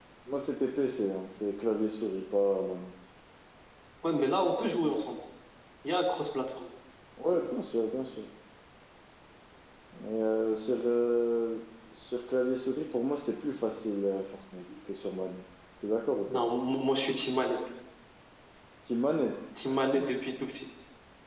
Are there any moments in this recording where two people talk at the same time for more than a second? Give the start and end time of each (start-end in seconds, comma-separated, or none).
none